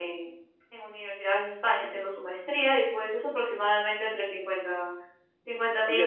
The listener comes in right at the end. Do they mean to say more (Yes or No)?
Yes